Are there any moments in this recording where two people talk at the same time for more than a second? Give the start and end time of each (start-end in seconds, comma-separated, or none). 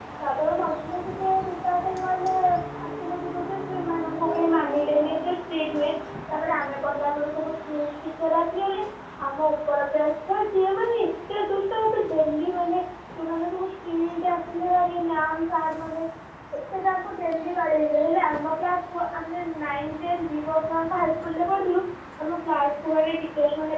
none